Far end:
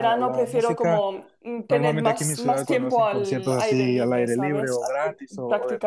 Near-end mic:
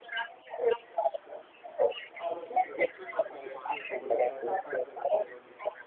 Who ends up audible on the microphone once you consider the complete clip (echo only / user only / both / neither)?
both